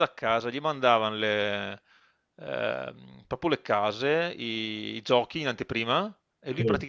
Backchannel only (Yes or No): Yes